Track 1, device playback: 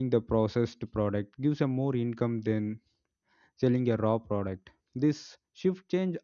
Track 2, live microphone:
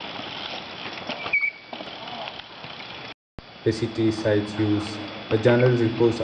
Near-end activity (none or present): present